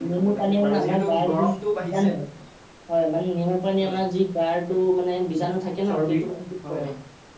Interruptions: present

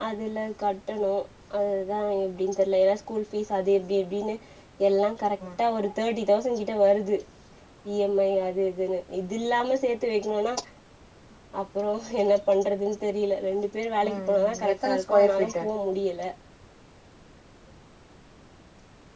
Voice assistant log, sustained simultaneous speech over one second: present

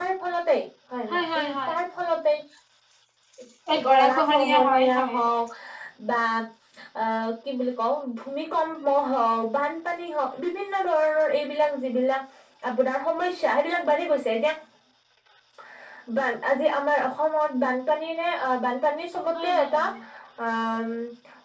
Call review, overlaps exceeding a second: present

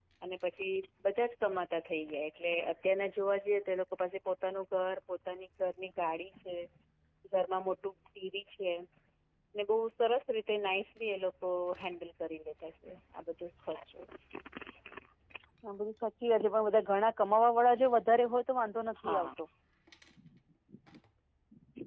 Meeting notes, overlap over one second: none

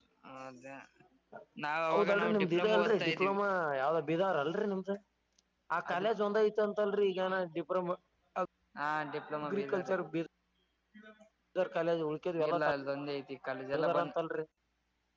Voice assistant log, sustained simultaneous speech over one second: present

